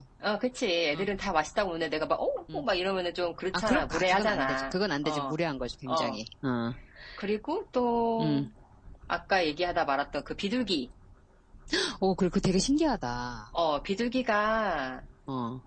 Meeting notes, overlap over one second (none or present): present